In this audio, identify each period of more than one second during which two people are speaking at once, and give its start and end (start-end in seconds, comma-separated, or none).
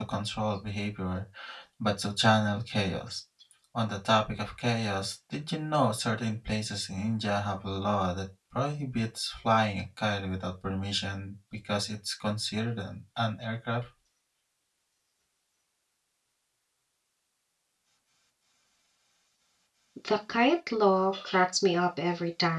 none